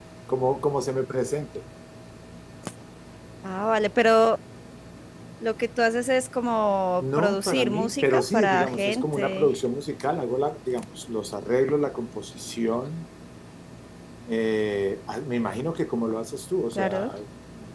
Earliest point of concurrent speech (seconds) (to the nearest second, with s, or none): 7 s